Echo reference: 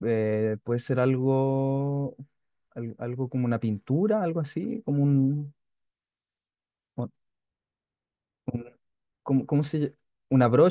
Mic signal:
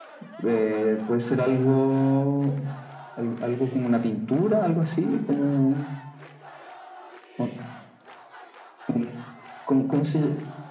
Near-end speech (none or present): none